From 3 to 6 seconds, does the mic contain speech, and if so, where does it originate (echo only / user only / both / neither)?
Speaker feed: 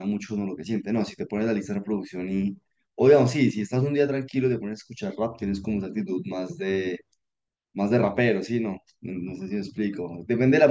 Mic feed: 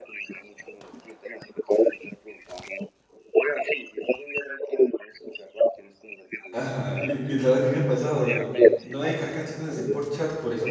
echo only